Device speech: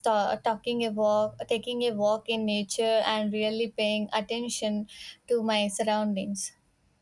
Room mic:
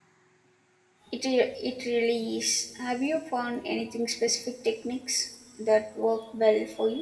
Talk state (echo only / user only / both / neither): user only